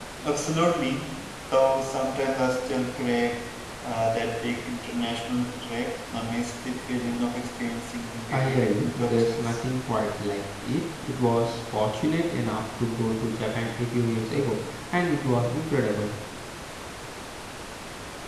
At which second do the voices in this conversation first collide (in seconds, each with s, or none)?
8.3 s